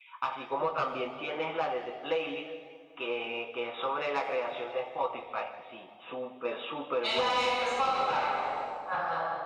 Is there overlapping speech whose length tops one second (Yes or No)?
No